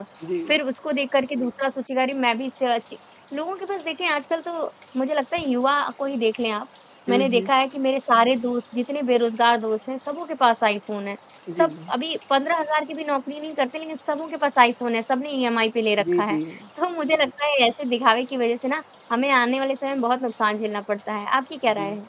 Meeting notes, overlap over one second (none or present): none